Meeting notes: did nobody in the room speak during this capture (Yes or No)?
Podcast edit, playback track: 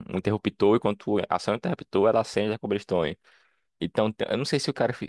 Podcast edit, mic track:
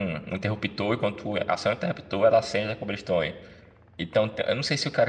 Yes